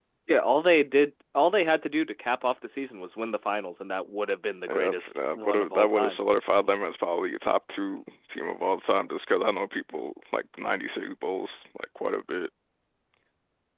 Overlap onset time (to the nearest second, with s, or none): 5 s